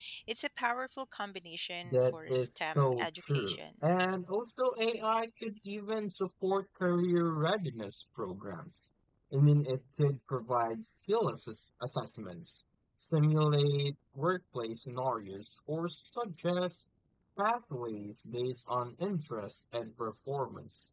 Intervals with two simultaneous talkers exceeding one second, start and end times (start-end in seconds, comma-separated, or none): 1.8-3.8